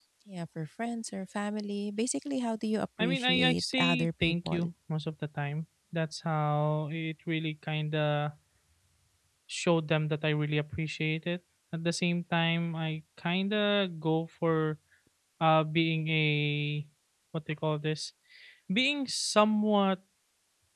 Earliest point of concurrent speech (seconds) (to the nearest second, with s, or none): 3 s